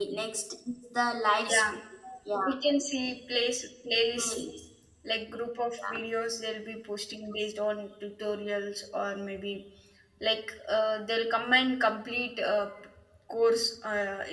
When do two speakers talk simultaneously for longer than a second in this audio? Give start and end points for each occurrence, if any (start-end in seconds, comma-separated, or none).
none